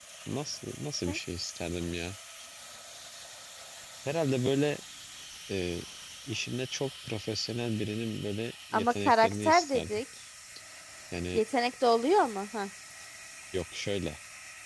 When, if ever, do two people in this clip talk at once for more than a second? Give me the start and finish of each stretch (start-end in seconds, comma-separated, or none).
8.7-10.0